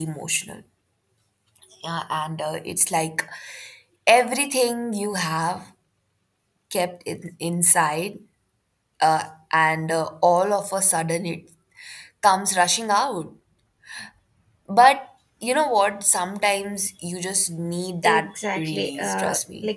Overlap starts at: 18.0 s

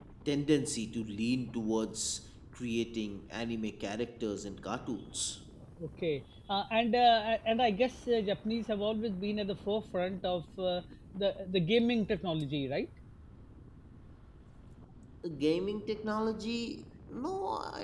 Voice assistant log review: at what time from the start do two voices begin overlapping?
none

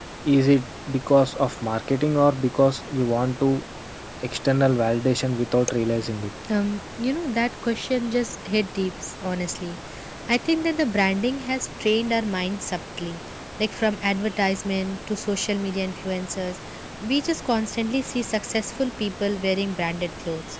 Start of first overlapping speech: none

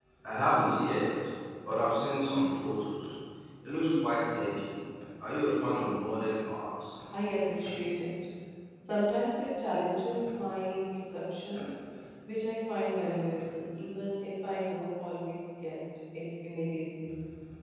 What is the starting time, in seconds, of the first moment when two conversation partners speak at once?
none

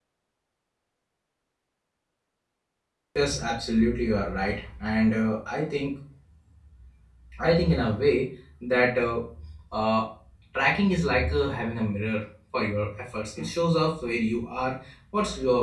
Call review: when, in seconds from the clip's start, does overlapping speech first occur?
none

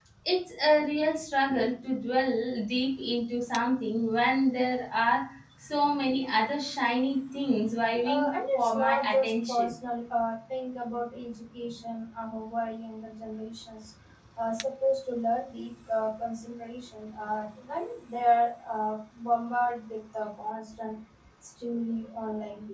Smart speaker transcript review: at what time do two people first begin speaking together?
8.0 s

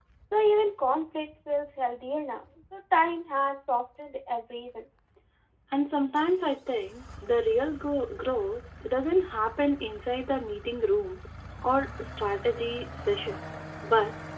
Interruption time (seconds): none

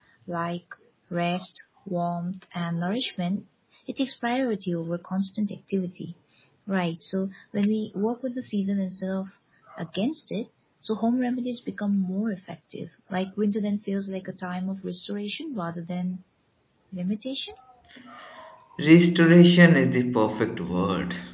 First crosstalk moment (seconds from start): none

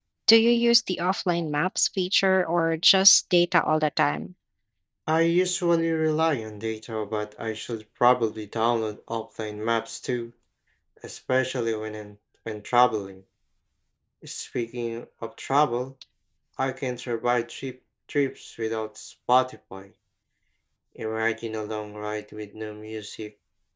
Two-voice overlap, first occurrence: none

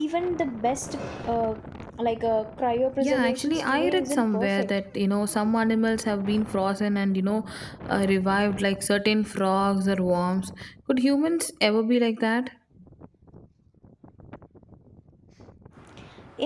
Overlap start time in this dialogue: 3.0 s

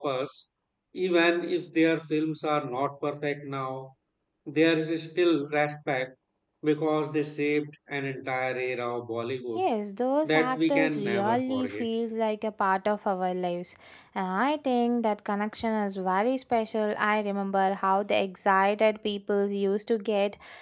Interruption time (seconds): 10.2 s

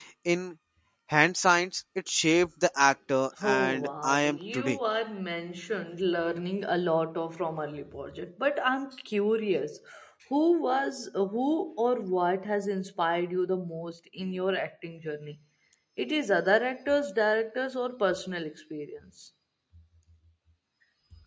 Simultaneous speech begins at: 3.4 s

